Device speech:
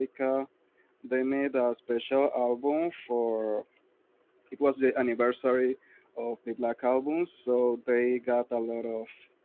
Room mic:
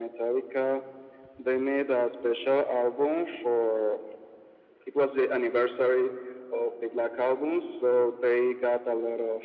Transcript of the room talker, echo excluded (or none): none